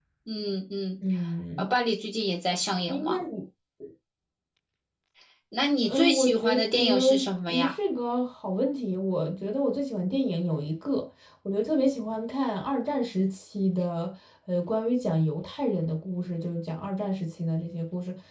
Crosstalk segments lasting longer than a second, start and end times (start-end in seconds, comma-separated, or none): 5.8-7.7